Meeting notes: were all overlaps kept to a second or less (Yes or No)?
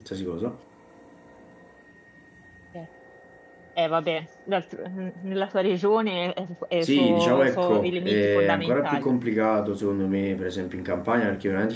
No